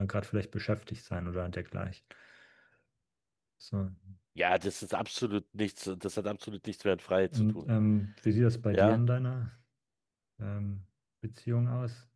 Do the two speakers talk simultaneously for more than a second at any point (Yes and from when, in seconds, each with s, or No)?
No